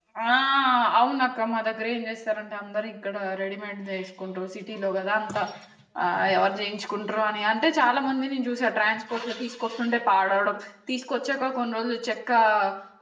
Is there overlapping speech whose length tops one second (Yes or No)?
No